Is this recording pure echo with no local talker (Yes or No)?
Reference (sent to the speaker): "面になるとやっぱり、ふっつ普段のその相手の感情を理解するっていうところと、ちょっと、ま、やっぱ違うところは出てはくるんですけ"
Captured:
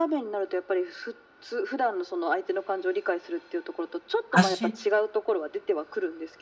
No